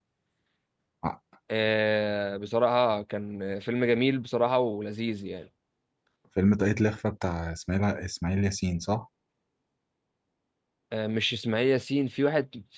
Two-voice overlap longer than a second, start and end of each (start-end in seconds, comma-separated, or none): none